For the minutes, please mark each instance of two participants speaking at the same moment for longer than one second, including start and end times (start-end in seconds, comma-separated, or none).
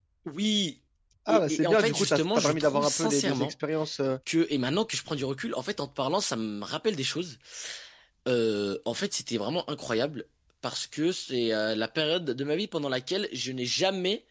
1.3-3.5